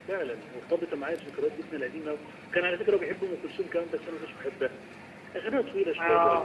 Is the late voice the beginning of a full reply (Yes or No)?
No